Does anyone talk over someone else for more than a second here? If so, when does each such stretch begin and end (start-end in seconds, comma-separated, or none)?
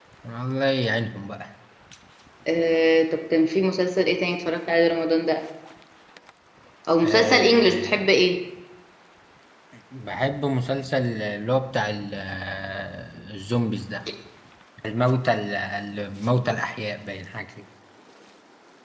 7.0-8.2